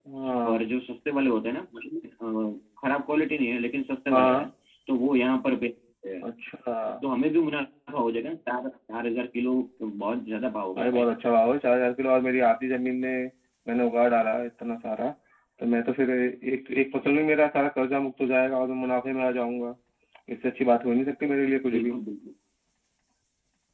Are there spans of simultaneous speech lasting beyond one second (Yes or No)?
No